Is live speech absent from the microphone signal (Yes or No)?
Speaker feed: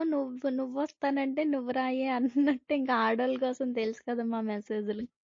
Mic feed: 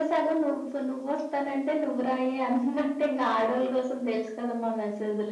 Yes